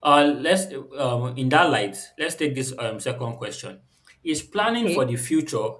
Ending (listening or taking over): listening